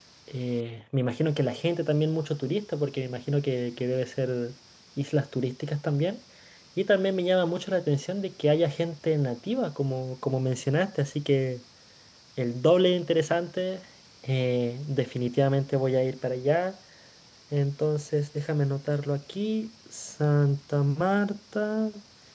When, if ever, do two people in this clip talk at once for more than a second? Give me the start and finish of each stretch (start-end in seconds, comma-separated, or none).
none